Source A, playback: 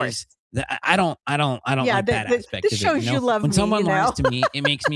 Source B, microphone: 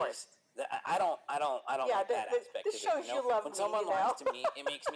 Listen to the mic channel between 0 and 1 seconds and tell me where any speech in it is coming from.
echo only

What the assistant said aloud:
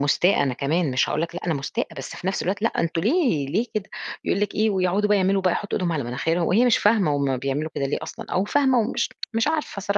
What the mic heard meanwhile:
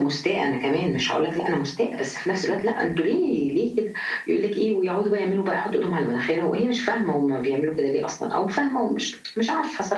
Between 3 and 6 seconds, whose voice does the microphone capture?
echo only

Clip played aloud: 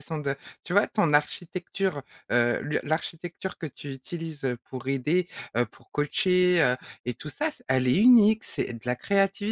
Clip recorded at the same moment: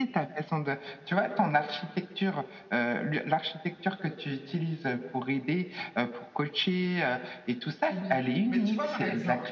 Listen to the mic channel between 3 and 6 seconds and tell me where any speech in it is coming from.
echo only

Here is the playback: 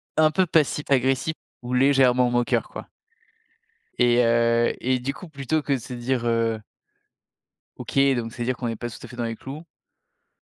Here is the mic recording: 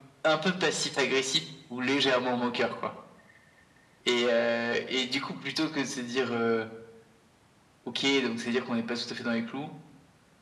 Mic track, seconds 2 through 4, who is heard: echo only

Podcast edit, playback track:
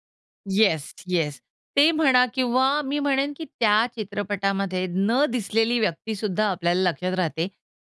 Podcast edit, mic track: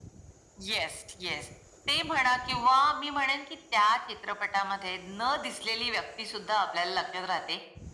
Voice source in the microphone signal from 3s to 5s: echo only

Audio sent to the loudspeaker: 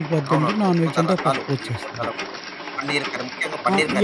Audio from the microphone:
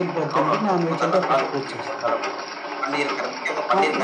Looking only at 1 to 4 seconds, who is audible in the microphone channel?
echo only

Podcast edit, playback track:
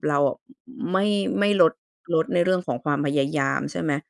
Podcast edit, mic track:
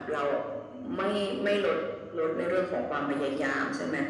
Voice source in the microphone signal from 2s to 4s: echo only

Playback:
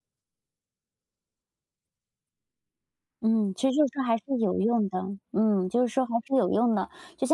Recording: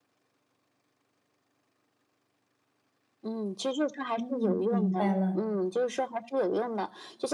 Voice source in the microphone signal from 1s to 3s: neither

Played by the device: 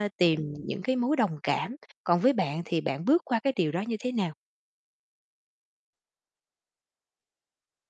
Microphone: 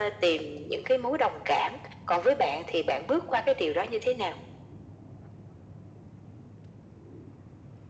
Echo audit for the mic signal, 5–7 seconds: neither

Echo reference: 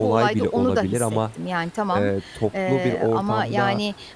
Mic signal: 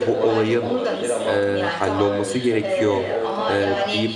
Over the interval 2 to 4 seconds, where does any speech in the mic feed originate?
both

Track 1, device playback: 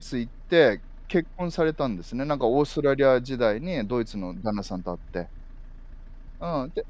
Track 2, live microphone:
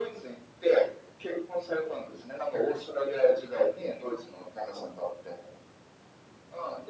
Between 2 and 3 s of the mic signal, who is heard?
echo only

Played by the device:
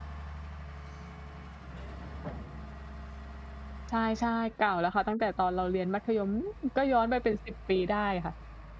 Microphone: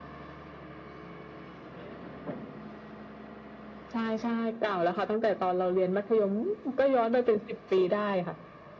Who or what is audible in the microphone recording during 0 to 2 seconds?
neither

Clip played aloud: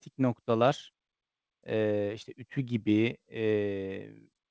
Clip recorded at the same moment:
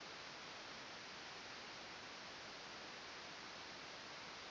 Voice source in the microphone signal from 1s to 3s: neither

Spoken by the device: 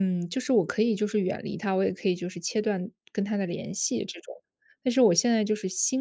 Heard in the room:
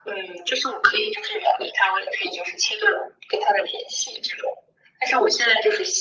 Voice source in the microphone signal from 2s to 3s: echo only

